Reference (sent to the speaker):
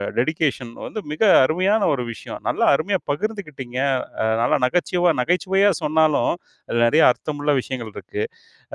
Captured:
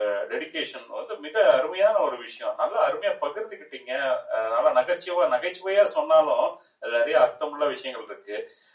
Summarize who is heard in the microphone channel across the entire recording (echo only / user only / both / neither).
echo only